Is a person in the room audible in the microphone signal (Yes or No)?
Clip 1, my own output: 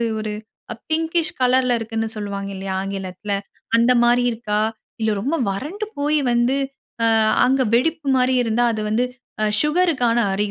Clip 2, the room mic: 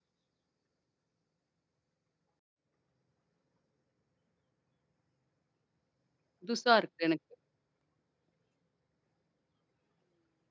Yes